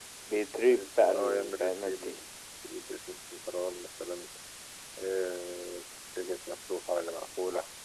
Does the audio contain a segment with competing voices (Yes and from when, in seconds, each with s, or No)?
Yes, from 0.7 s